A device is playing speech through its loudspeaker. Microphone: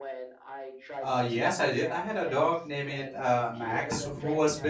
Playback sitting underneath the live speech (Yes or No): Yes